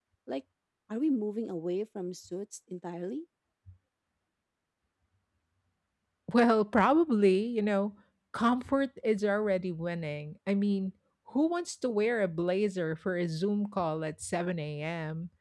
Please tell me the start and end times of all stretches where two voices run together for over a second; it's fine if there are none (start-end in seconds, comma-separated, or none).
none